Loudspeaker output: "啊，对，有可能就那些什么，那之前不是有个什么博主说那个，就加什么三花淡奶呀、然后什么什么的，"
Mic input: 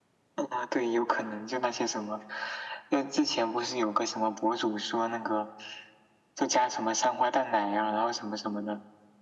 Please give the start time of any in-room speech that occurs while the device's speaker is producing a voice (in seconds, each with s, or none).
none